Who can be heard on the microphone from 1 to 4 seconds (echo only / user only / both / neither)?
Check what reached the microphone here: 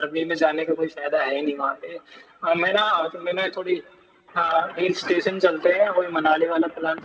echo only